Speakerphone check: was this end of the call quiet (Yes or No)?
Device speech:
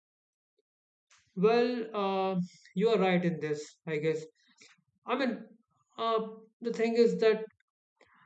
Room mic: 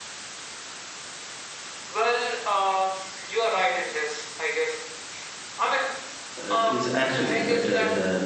No